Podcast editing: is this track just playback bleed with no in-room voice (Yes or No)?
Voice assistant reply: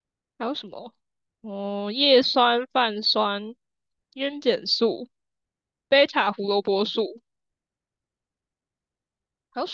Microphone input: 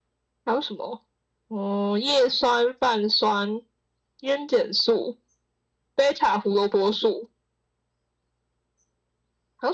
Yes